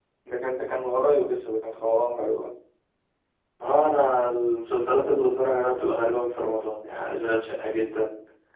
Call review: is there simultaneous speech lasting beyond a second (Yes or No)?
No